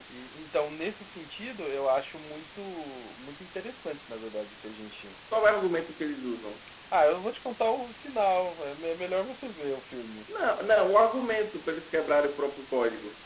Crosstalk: none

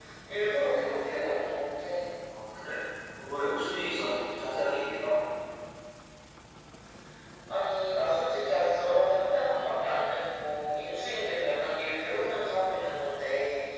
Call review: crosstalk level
none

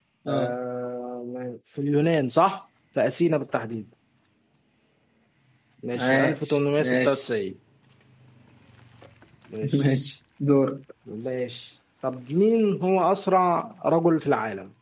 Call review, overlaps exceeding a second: present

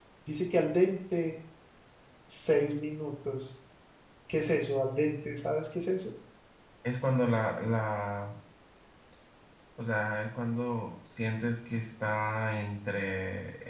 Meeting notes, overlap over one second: none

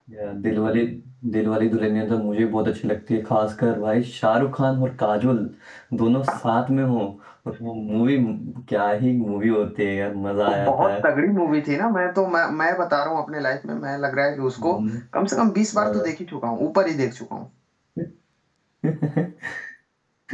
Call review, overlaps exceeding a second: none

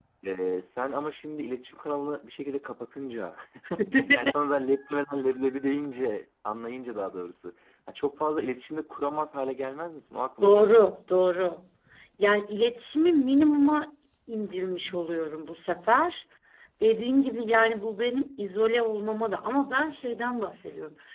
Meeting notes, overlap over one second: none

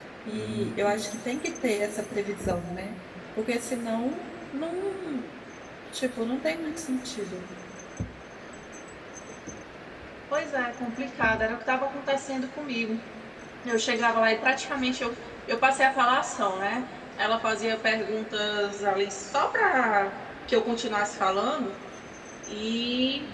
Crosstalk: none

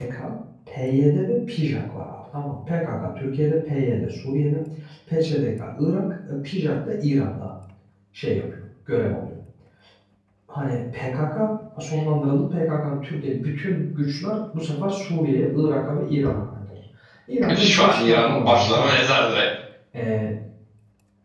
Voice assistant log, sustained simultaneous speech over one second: present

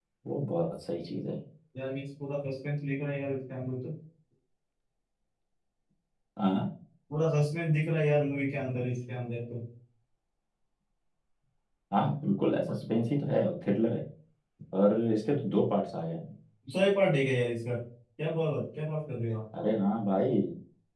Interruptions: none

